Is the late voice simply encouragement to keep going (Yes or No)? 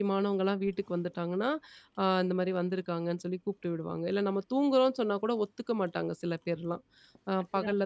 Yes